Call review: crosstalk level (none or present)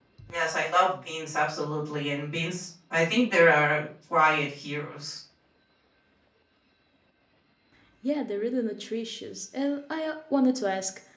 none